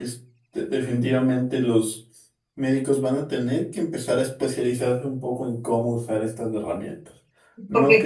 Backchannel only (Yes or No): No